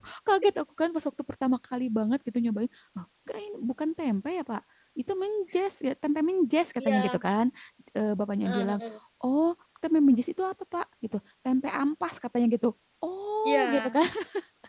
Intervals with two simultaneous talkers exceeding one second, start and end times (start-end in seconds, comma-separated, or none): none